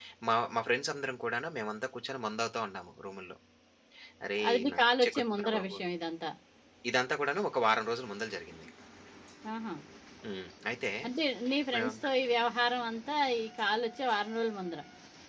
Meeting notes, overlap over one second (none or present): present